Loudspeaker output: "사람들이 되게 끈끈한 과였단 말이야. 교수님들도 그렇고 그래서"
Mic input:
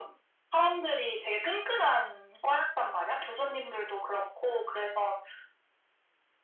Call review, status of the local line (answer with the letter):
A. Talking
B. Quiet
B